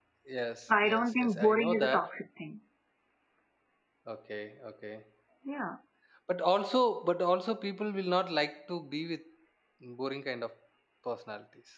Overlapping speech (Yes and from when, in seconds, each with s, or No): Yes, from 0.8 s